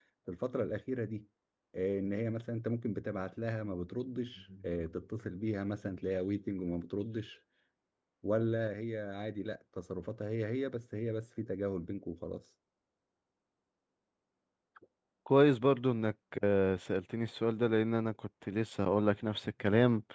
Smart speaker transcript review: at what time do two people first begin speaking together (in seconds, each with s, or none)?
none